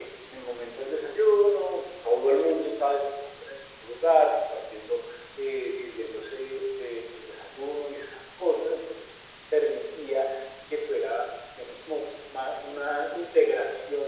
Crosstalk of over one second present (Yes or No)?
No